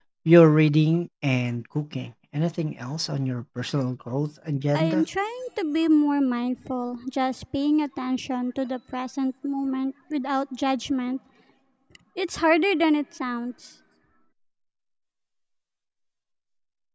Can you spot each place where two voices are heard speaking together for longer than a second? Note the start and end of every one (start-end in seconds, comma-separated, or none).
none